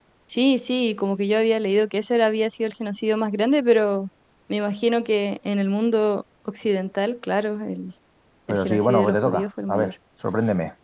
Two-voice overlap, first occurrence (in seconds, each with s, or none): 8.5 s